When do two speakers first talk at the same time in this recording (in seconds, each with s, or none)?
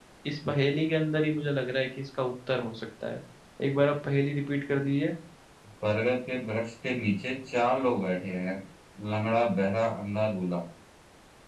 none